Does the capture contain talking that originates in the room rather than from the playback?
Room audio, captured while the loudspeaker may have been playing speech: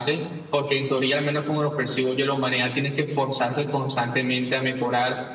No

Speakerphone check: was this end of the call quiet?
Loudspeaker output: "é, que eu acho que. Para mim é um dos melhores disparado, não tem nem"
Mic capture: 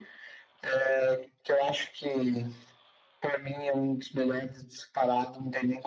Yes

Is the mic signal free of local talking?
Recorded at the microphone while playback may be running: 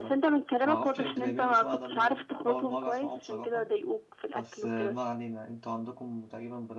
No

